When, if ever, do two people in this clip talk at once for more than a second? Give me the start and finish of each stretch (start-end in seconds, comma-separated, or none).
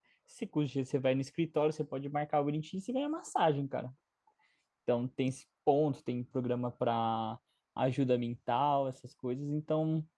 none